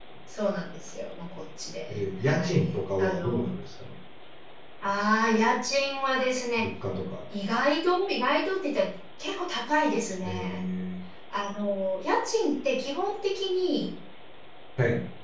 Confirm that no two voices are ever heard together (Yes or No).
No